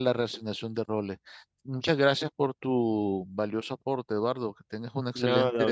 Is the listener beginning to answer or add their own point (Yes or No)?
Yes